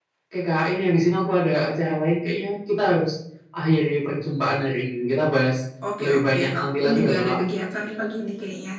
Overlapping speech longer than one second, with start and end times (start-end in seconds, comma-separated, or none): 6.0-7.4